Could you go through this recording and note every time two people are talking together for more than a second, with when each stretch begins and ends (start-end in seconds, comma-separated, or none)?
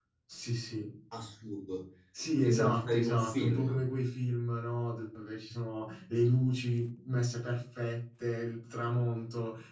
2.4-3.8